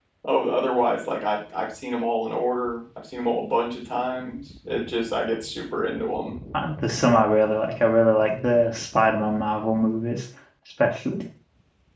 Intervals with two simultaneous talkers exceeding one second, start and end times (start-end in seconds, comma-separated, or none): none